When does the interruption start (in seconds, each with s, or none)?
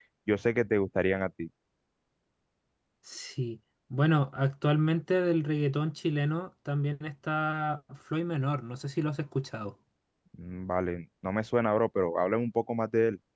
none